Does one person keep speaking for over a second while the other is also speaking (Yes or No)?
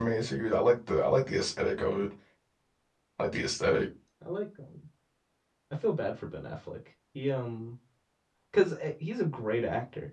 No